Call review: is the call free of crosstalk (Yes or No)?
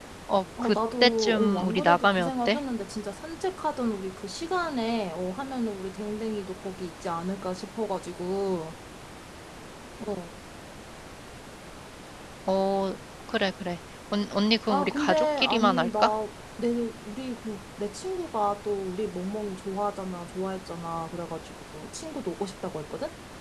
No